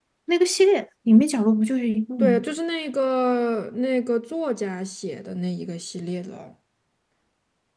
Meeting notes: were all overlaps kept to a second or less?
Yes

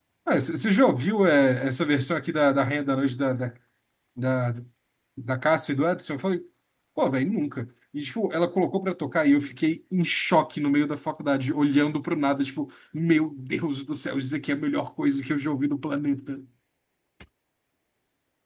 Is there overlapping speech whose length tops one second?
No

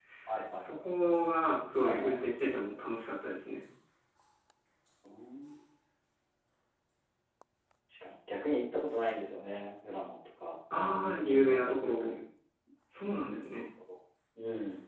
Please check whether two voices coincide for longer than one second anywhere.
Yes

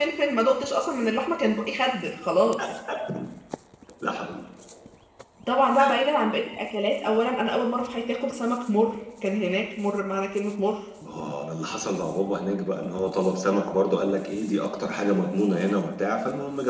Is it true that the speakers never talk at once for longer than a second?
Yes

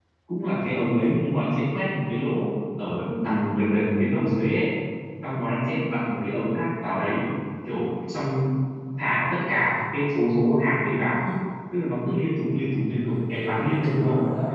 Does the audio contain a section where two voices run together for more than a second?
Yes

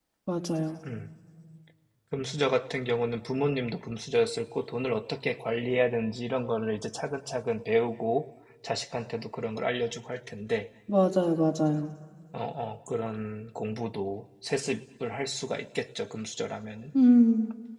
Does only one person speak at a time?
Yes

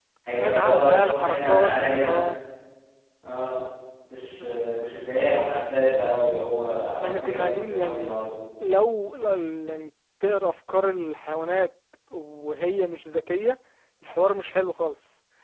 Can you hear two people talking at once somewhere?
Yes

